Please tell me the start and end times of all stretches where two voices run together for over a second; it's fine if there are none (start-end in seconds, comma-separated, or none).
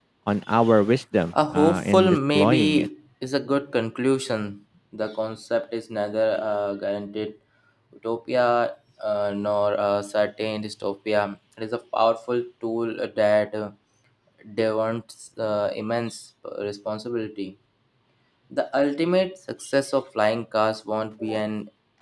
1.5-2.9